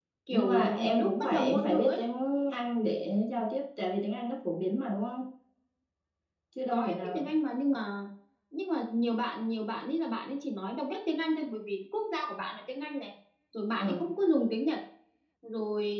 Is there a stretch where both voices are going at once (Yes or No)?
Yes